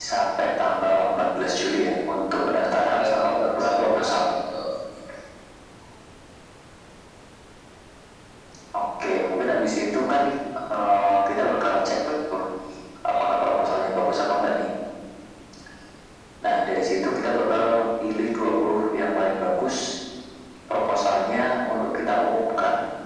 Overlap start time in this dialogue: 2.9 s

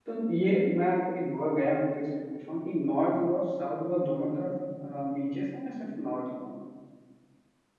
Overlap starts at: none

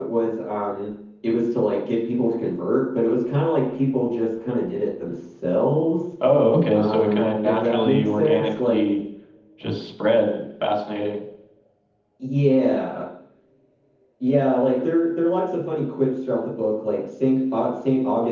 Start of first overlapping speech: 6.7 s

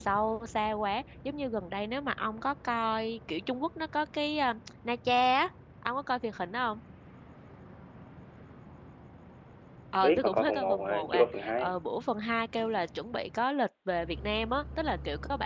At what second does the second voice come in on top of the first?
10.0 s

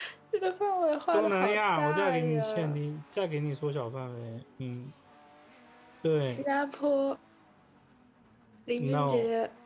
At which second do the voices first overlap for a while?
1.1 s

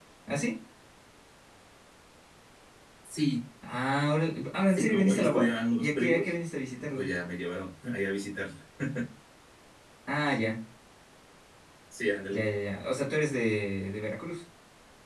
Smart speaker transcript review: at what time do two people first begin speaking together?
4.7 s

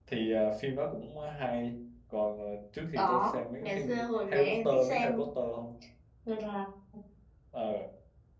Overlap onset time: 3.0 s

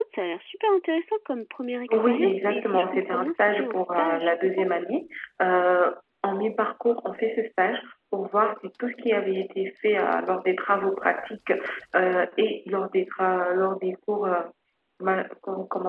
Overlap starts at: 1.9 s

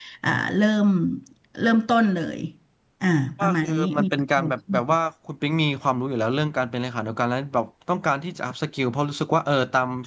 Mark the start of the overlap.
3.4 s

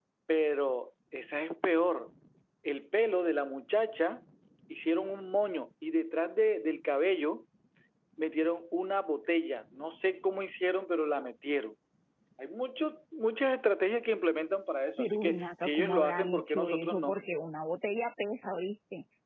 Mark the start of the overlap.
15.0 s

